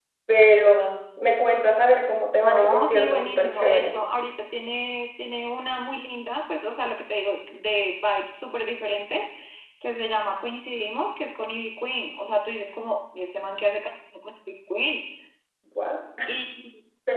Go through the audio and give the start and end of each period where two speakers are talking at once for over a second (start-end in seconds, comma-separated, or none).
2.4-3.9